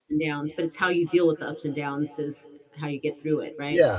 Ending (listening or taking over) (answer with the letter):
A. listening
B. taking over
B